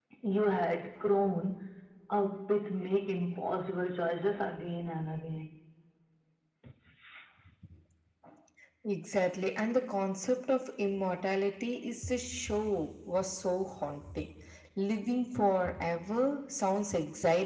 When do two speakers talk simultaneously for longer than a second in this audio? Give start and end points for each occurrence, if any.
none

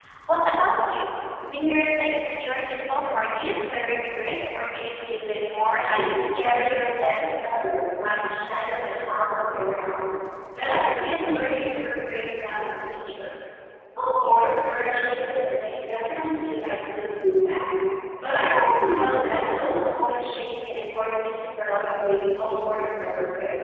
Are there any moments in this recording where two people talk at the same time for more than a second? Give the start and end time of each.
5.8-7.2

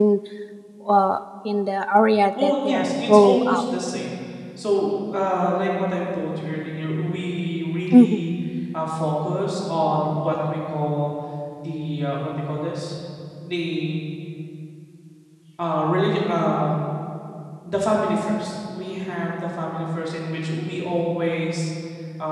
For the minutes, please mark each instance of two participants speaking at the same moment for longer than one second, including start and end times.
2.4-3.6

